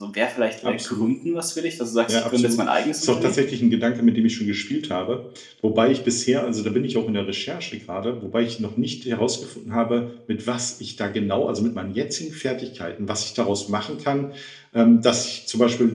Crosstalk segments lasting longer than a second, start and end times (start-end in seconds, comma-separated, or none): 2.1-3.3